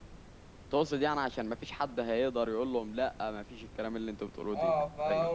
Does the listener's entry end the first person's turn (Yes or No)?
Yes